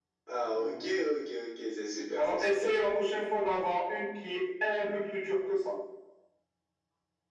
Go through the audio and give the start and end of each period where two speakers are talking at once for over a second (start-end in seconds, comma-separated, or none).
none